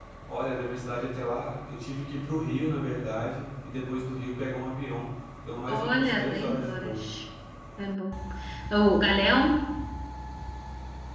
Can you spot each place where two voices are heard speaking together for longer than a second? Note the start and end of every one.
5.7-7.0

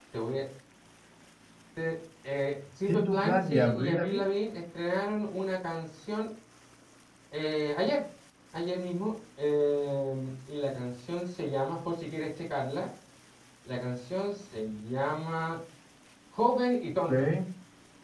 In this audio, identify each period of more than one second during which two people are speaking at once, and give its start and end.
2.9-4.2

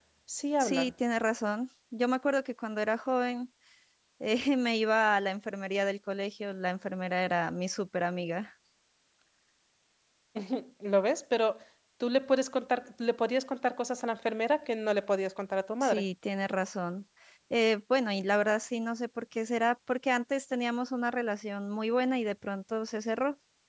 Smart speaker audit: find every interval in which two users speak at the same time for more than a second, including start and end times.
none

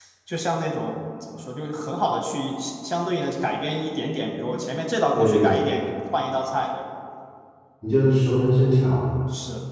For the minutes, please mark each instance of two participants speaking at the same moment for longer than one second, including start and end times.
none

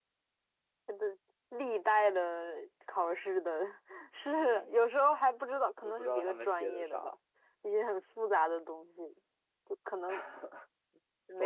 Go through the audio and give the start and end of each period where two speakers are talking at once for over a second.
5.8-7.2

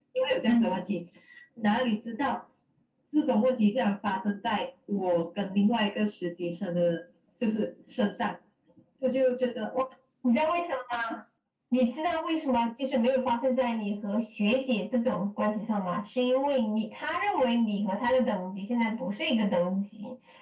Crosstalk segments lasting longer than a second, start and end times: none

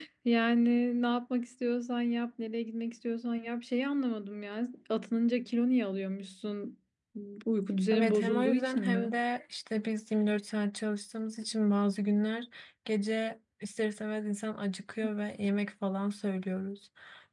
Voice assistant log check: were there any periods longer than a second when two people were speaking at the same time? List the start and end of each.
7.9-9.1

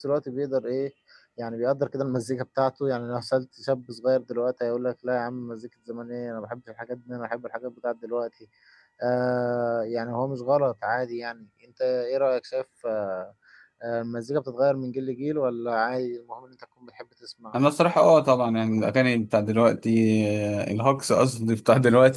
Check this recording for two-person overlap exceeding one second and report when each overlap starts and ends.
none

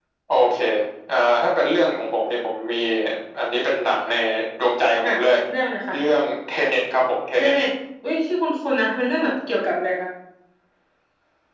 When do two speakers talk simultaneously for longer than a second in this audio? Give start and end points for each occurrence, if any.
none

